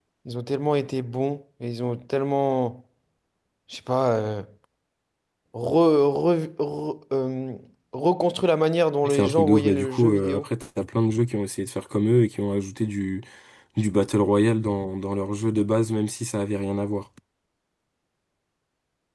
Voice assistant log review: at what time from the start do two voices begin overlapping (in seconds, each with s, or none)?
9.0 s